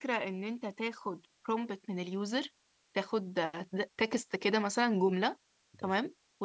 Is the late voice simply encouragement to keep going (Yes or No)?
Yes